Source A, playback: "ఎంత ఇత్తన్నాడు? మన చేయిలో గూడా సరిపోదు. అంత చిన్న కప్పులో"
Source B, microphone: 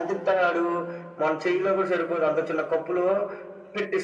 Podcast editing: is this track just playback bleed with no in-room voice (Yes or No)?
Yes